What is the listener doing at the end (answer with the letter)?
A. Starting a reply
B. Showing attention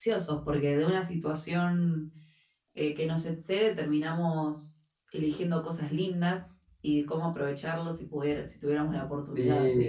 A